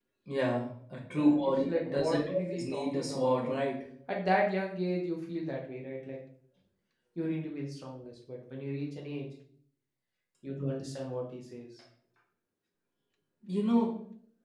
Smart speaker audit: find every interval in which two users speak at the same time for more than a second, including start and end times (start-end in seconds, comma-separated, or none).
1.1-3.4